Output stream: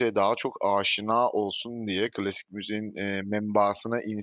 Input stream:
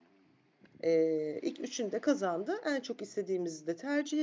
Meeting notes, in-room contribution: present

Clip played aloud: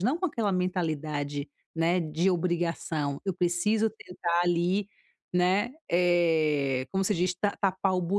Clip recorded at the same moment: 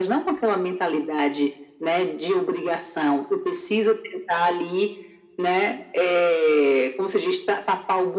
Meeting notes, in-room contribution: none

